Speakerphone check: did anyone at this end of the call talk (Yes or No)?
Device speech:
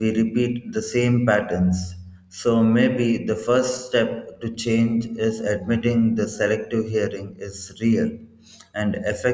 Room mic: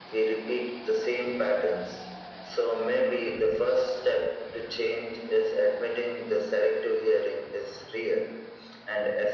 No